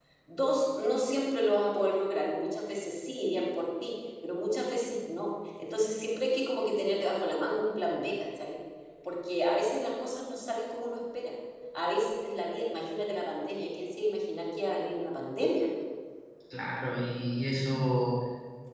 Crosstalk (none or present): none